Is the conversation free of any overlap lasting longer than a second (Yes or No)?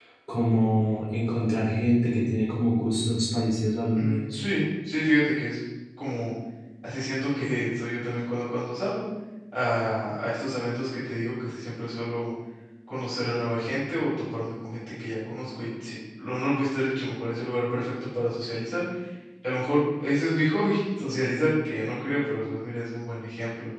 Yes